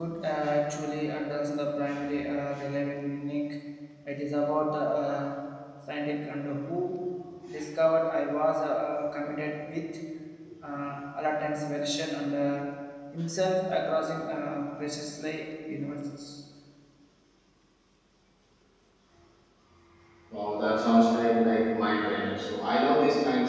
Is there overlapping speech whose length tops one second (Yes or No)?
No